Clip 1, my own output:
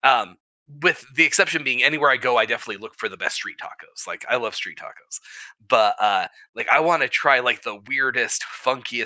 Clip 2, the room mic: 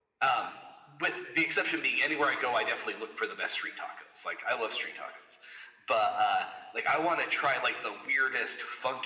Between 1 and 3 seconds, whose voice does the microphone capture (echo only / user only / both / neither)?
echo only